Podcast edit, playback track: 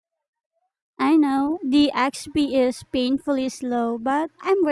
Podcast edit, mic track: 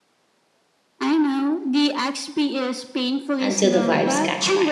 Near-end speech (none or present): present